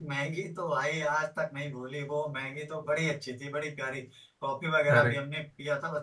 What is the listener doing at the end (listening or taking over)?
listening